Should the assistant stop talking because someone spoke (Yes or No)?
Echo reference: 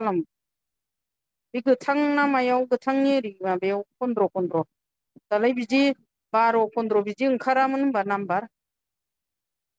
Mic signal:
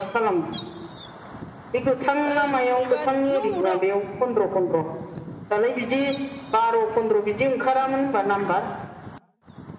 Yes